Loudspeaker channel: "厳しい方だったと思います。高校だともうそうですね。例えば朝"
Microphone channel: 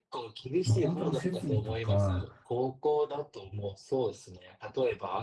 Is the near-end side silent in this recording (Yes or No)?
No